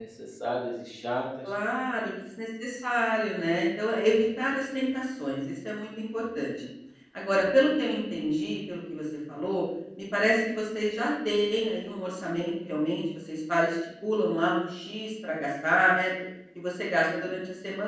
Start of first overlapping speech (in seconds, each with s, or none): none